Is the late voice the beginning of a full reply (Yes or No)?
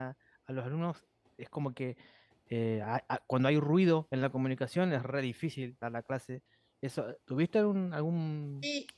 Yes